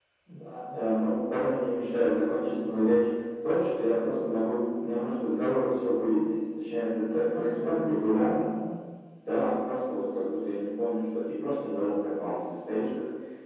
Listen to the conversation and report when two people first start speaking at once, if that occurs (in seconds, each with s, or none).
7.1 s